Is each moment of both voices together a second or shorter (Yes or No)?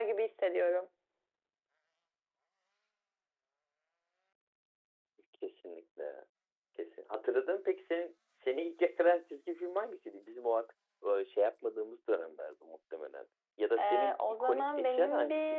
No